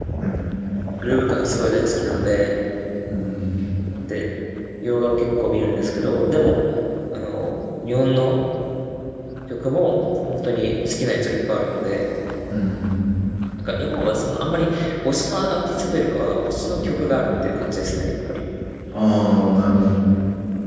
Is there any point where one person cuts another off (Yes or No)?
No